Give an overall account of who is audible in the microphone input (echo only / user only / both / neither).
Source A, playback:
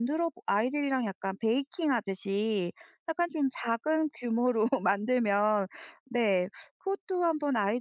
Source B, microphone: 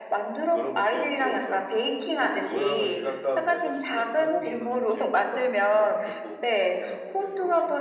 both